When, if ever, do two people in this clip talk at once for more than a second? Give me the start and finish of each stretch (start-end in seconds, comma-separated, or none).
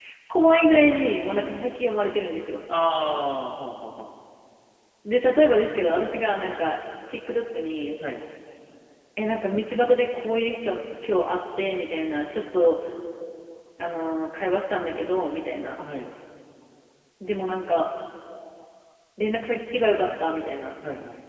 none